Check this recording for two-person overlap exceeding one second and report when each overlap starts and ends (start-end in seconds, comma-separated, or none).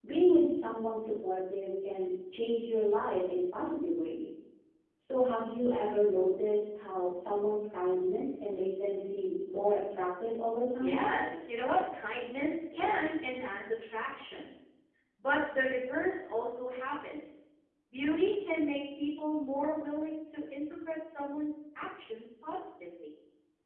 none